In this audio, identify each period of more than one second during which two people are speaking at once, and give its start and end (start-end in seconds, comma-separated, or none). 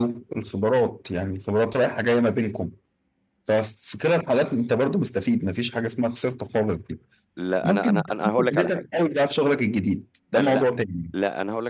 7.6-8.8